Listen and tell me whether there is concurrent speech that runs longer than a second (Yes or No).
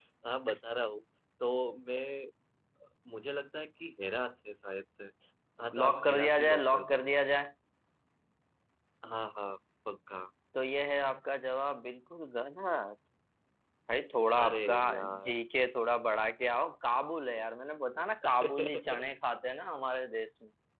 Yes